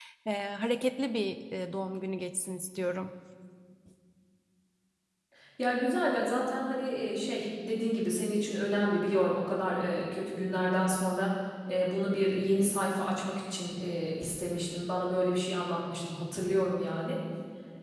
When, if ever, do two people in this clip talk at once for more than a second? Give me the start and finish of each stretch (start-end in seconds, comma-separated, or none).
none